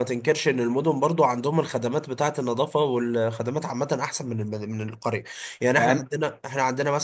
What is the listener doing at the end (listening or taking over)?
listening